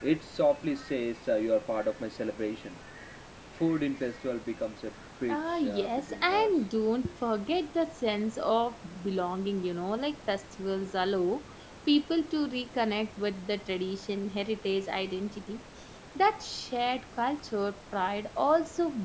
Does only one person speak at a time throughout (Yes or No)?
No